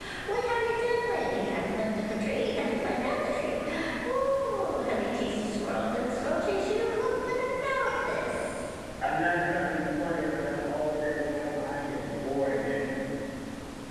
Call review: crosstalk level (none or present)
none